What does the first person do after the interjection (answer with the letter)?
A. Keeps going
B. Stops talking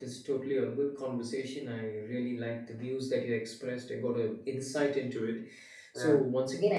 A